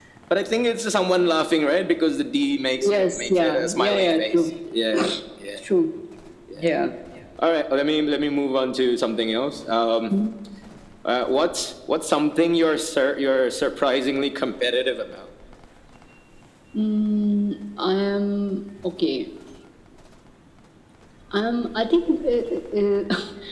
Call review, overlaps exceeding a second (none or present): present